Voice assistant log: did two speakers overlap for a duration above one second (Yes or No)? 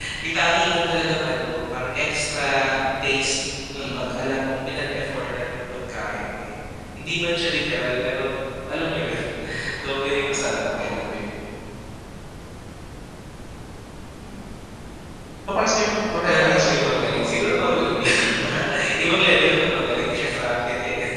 Yes